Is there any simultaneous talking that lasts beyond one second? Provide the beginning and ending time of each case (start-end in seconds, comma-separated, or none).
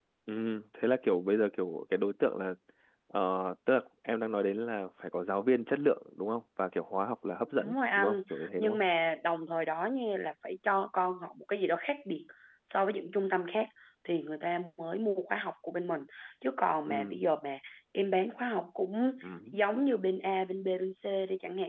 7.6-8.8